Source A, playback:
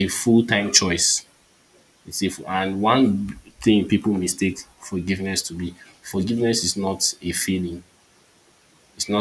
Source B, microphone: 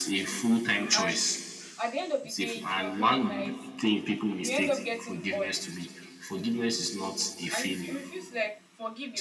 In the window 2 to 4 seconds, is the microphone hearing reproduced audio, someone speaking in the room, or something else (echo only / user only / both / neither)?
both